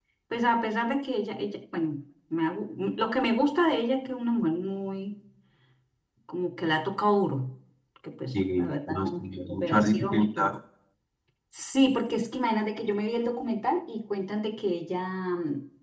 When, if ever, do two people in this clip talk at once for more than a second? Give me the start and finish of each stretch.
8.3-10.6

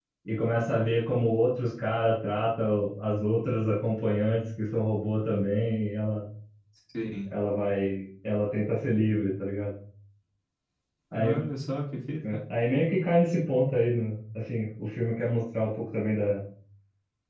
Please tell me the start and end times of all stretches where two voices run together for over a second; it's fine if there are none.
none

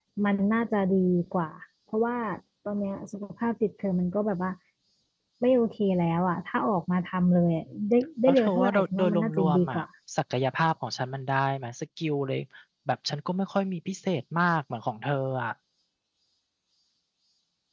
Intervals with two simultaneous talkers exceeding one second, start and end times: 8.3-9.8

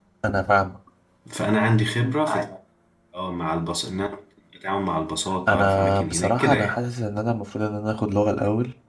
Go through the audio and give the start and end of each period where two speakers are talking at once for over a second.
5.5-6.8

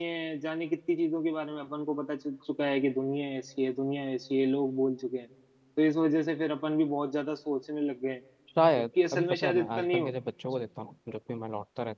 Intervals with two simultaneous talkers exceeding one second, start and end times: 8.8-10.1

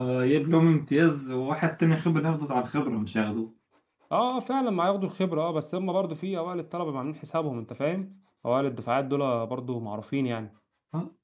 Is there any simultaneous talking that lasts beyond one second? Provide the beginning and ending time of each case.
none

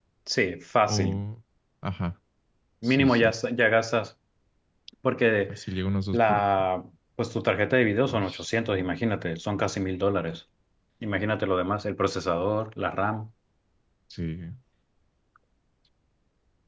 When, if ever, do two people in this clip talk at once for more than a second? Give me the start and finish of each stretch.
none

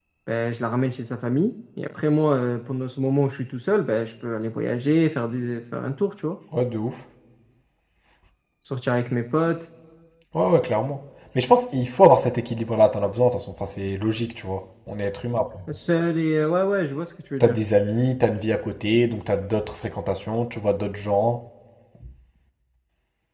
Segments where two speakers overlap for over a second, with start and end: none

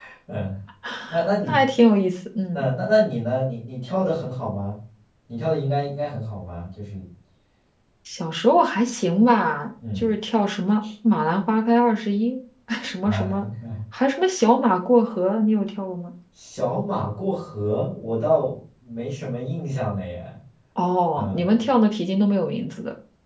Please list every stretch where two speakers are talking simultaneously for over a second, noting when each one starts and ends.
none

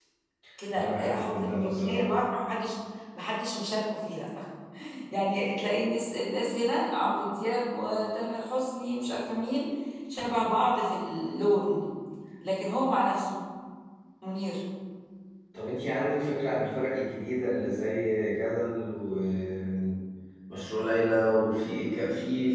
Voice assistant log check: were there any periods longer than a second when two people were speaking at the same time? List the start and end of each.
0.7-2.1

